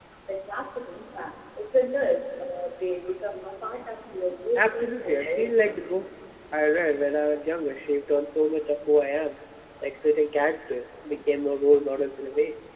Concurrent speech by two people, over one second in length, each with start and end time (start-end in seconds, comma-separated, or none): 4.6-5.8